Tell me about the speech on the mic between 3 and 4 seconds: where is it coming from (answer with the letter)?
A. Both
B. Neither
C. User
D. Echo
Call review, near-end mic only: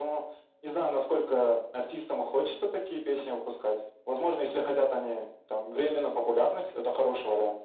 D